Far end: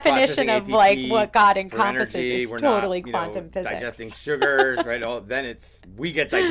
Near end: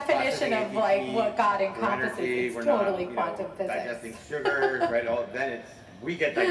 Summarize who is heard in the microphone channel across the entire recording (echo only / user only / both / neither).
echo only